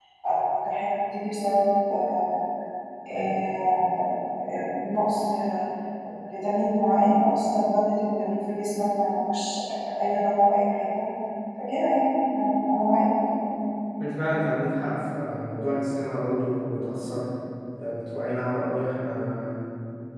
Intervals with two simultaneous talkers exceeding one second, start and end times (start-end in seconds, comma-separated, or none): none